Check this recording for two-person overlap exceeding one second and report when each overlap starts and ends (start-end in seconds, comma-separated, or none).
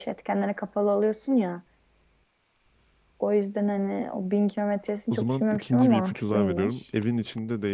5.1-6.8